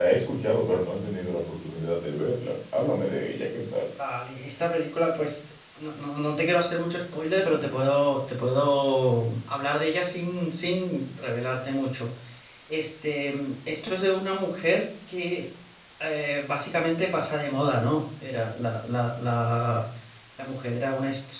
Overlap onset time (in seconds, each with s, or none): none